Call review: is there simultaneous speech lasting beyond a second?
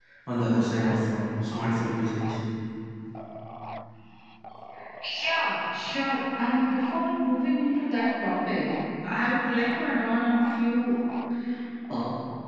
No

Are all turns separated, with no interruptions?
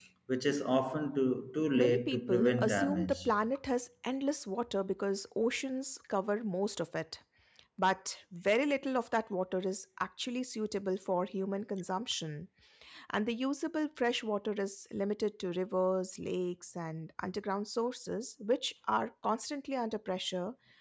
No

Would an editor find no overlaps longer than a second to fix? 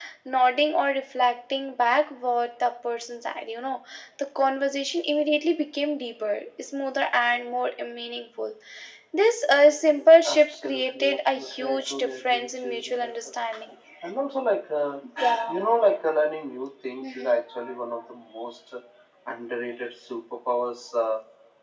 No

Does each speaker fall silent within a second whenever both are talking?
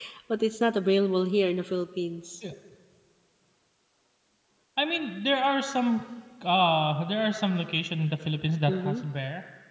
Yes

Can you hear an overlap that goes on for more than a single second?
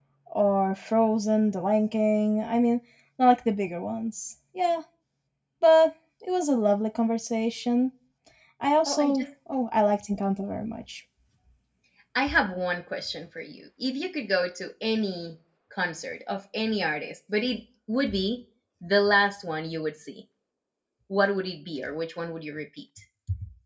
No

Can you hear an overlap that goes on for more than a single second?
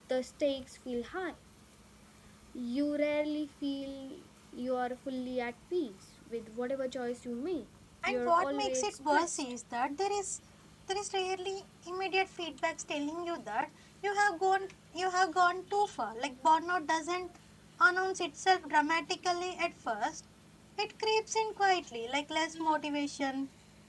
Yes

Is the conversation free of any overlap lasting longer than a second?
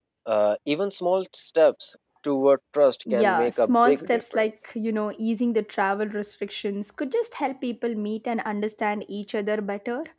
No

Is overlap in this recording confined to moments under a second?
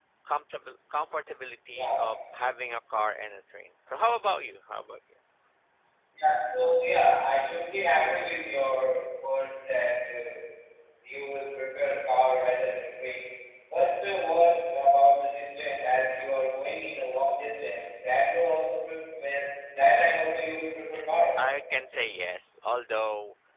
Yes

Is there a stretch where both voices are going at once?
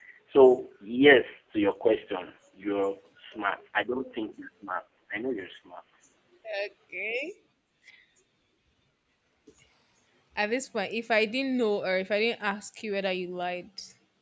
No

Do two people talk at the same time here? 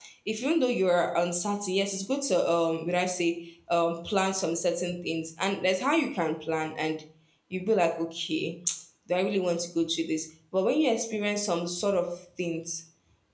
No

